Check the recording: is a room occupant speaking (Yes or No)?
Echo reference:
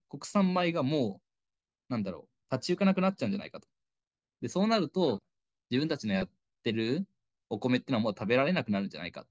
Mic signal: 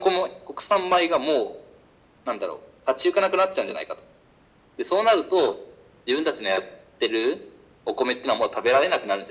No